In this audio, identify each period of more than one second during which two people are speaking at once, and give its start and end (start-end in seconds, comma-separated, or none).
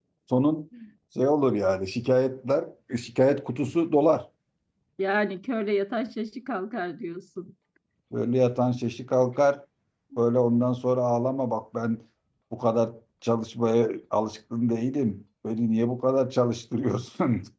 none